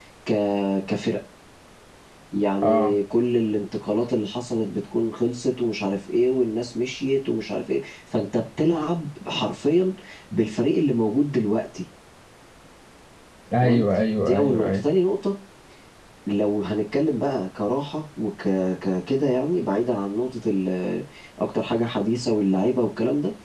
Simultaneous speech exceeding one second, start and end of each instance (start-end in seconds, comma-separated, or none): 13.6-14.8